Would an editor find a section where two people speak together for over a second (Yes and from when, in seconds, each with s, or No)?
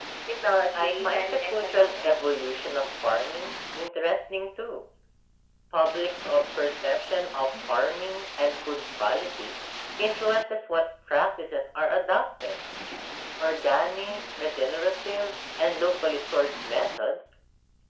Yes, from 0.7 s